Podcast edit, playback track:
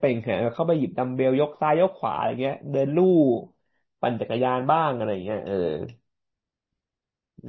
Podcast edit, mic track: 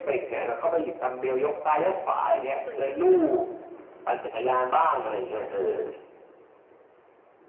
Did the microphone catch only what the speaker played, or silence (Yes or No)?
No